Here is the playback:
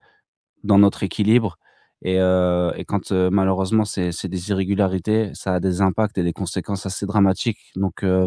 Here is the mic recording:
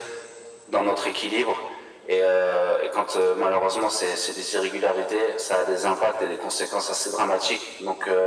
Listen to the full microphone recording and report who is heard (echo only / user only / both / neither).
echo only